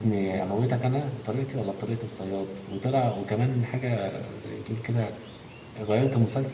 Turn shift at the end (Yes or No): No